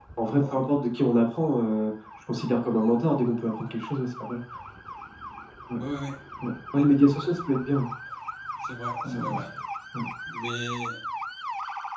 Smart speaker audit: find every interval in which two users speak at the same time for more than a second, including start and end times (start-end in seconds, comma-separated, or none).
none